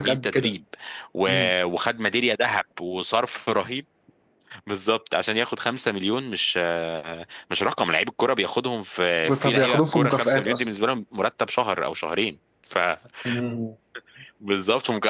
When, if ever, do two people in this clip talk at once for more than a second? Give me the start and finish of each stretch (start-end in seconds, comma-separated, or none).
9.4-10.7